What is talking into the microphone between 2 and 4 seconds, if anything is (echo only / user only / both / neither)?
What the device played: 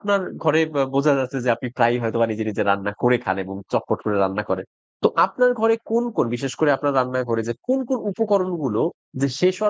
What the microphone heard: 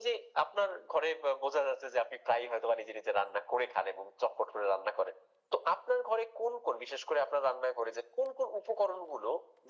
echo only